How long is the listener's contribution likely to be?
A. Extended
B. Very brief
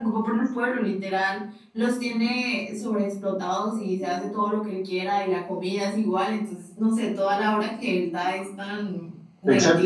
A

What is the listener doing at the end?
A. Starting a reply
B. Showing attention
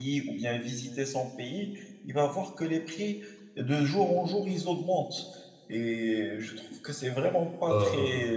B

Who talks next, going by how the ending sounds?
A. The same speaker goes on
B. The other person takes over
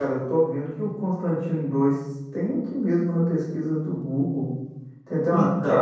A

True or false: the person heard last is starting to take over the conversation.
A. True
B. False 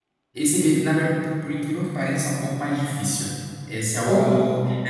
B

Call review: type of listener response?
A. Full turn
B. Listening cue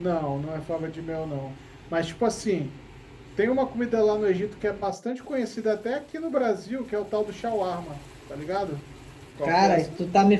A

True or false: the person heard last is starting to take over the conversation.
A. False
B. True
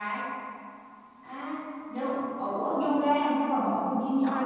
B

